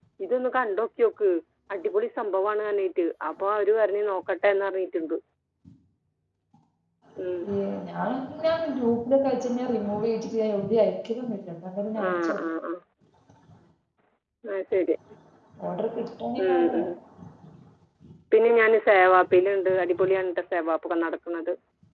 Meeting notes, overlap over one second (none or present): none